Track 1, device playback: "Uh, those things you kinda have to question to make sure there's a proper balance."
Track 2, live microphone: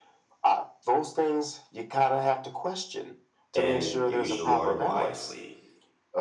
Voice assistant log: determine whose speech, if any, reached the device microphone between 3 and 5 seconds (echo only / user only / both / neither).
both